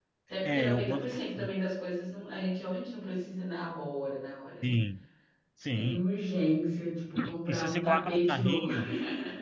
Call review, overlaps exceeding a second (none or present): present